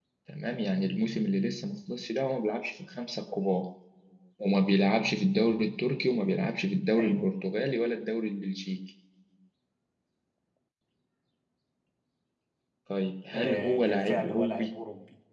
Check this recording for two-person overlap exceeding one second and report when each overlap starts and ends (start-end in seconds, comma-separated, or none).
13.3-14.7